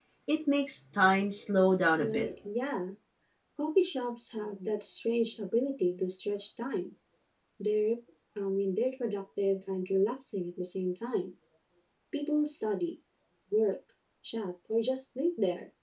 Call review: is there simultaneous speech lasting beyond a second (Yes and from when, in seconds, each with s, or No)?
No